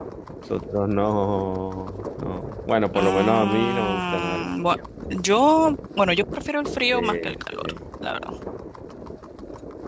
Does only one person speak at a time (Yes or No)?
No